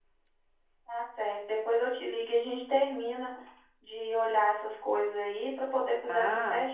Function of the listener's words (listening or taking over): taking over